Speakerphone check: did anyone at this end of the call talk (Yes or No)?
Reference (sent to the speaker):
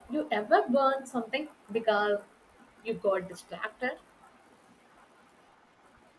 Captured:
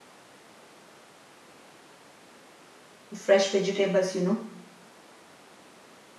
Yes